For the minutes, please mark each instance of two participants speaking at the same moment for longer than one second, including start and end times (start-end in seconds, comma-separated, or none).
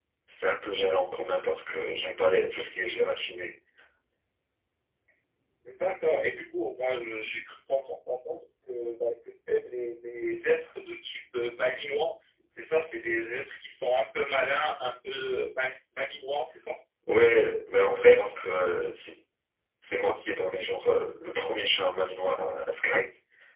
none